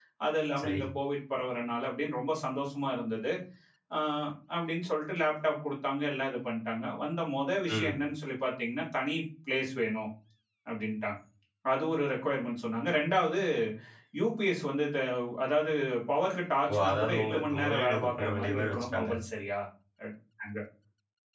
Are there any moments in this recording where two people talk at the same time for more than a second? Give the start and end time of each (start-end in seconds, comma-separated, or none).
16.7-19.1